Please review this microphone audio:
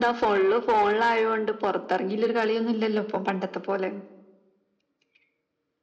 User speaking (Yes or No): No